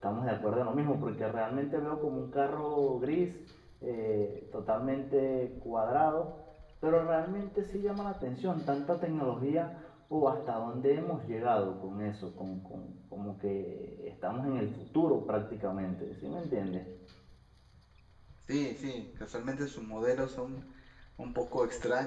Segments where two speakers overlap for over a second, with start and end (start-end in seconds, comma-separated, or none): none